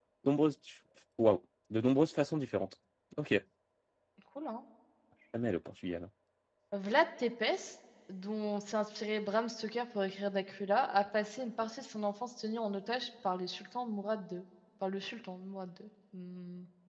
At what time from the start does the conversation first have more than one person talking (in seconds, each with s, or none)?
none